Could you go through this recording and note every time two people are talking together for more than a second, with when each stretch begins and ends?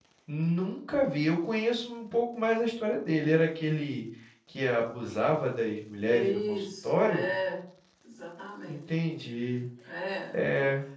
6.1-7.3

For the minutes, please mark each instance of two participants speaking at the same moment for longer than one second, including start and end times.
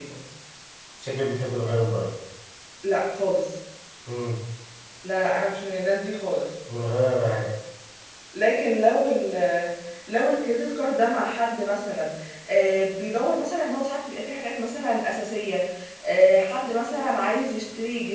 none

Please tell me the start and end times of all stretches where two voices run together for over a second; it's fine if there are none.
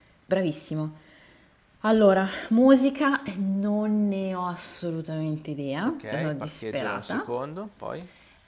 5.8-7.2

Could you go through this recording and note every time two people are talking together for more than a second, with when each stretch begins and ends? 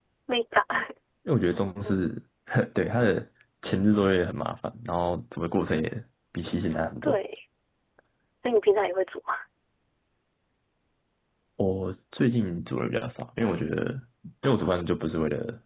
none

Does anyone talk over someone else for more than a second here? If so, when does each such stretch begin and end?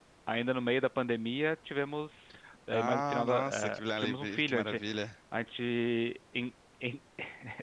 2.7-4.8

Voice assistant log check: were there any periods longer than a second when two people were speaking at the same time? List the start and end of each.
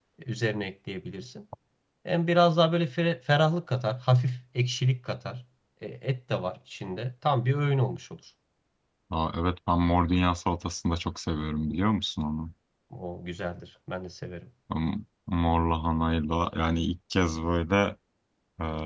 none

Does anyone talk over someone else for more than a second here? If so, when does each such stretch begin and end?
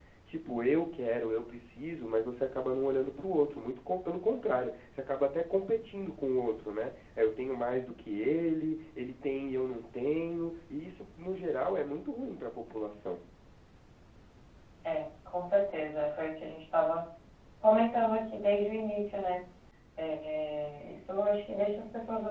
none

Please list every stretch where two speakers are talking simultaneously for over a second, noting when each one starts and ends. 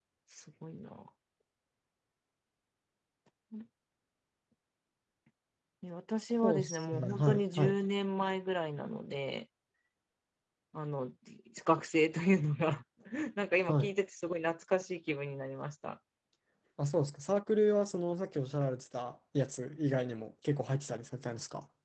6.4-7.8

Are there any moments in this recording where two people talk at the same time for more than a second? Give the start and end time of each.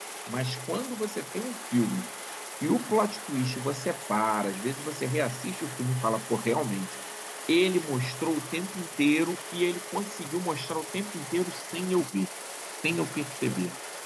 none

